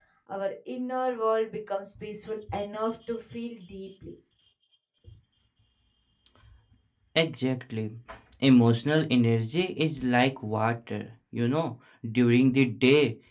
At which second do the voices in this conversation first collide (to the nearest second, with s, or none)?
none